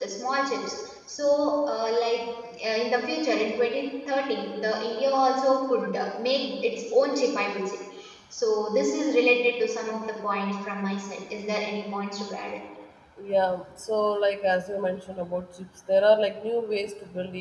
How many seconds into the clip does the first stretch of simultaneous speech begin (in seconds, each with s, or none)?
none